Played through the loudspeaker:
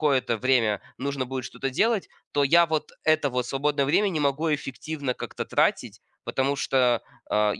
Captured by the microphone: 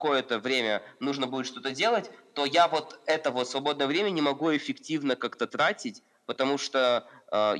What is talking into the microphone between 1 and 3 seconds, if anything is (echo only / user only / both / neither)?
echo only